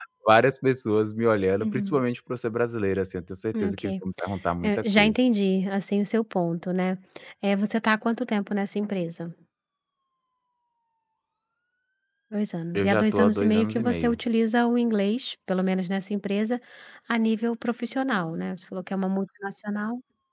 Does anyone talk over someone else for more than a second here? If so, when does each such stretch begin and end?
12.8-14.2

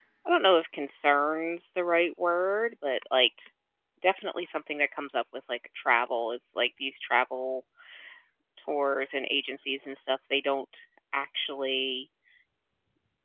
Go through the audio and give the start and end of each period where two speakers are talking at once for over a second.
none

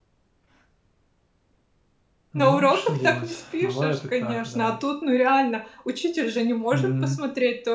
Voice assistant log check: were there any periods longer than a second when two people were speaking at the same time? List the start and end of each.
2.4-4.7

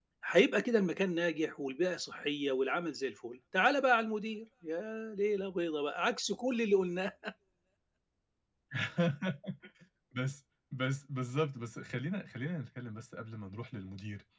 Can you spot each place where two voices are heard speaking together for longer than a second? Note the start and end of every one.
none

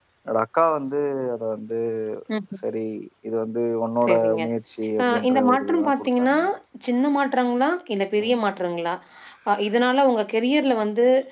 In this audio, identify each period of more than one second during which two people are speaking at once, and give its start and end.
5.0-6.4

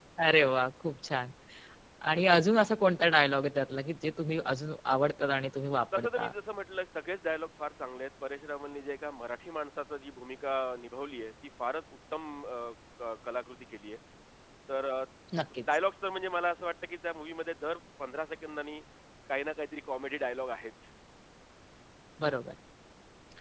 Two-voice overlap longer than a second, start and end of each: none

